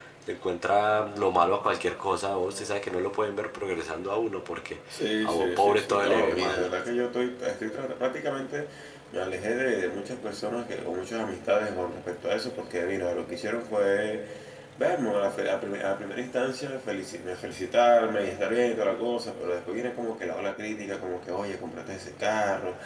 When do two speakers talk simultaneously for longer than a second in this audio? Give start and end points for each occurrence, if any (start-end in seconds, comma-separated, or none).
5.2-6.7